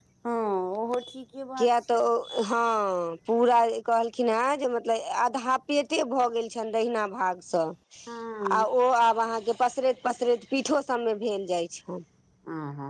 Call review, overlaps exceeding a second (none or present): none